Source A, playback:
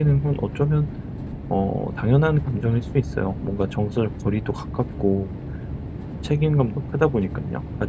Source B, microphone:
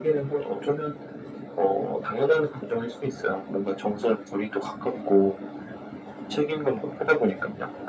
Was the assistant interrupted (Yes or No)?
No